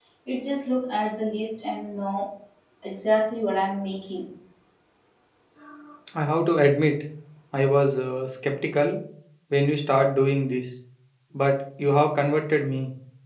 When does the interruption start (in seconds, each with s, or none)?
none